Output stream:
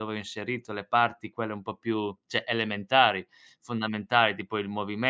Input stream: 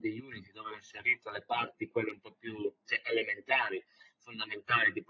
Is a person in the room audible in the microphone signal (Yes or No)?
No